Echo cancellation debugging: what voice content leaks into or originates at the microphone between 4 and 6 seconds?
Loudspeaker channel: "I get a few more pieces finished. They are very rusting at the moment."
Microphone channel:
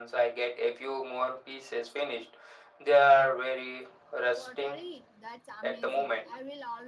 both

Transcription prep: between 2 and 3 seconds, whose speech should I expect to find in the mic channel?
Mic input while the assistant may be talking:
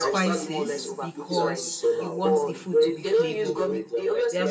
both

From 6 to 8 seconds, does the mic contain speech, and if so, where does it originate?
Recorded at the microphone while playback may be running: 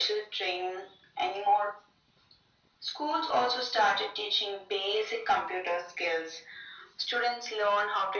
echo only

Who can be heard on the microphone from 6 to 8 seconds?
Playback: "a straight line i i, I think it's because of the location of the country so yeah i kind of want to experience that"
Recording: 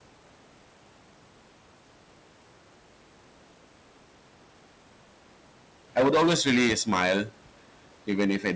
user only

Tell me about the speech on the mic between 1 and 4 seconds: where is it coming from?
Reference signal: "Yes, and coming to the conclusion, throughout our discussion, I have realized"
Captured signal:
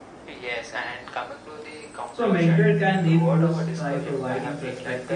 both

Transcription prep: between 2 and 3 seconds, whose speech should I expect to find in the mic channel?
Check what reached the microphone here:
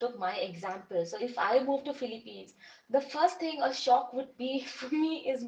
user only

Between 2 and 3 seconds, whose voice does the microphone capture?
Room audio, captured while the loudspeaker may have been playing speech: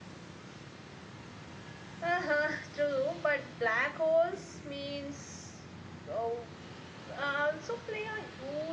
user only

